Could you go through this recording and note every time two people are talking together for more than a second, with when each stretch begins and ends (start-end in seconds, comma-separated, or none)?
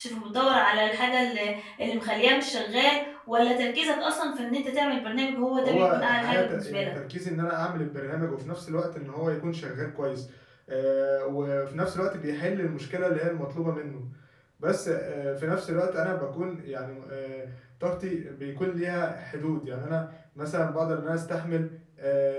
5.6-6.9